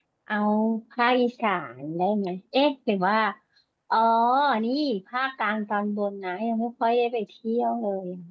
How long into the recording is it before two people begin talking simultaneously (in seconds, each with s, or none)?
none